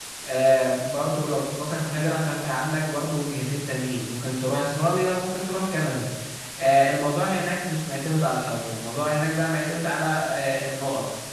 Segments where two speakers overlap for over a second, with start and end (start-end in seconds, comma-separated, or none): none